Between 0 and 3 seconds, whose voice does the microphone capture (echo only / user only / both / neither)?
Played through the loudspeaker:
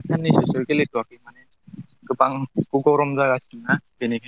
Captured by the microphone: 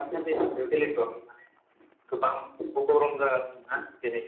echo only